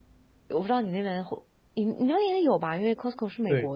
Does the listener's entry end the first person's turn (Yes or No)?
Yes